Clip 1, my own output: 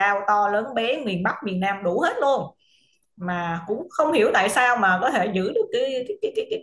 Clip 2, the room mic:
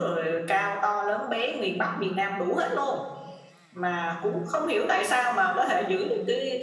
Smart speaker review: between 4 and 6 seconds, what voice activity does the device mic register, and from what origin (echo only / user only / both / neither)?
echo only